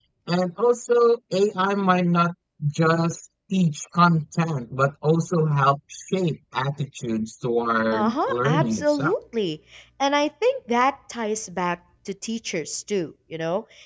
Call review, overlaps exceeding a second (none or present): present